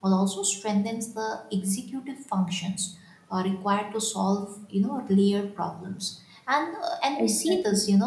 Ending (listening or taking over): listening